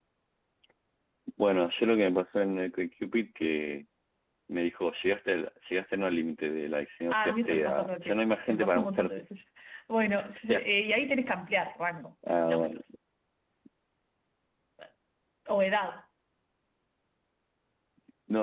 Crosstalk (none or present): present